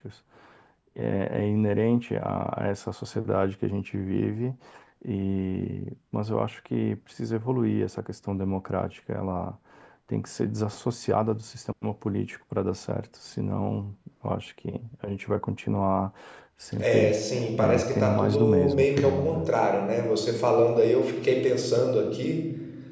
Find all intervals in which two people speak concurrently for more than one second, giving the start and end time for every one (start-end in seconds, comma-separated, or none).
17.6-19.4